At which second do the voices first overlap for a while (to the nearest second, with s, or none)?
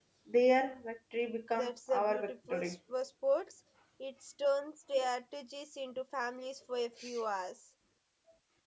2 s